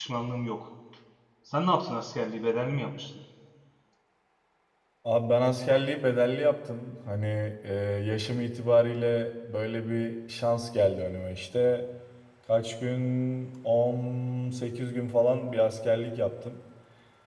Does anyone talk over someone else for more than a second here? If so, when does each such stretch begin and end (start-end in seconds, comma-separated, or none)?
none